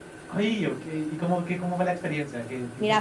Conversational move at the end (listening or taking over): taking over